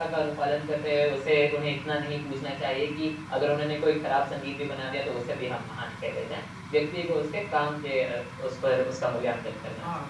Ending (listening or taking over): taking over